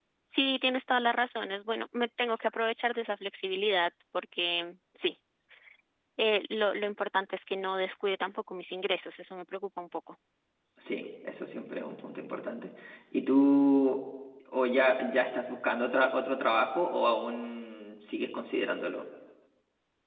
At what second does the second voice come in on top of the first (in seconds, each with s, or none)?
none